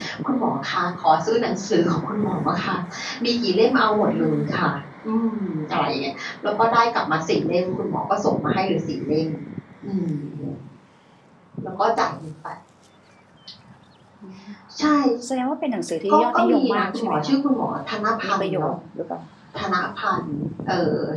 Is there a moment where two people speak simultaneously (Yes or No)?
Yes